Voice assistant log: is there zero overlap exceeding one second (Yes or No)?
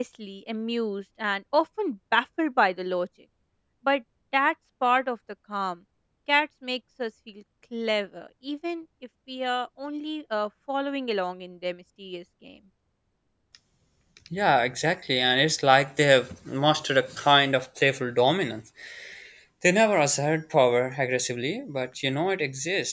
Yes